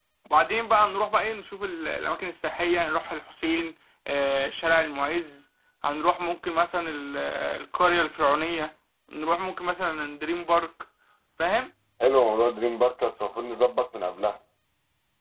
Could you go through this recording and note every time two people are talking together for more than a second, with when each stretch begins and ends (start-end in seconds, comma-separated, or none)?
none